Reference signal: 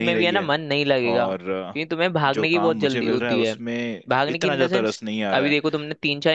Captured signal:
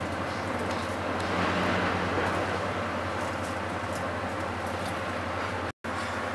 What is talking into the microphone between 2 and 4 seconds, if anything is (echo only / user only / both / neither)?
neither